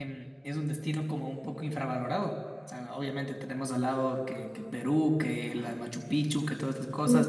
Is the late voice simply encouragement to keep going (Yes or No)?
Yes